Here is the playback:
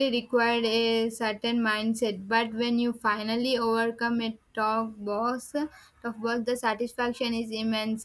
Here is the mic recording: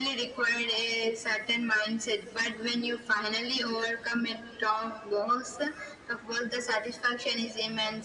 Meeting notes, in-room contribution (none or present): none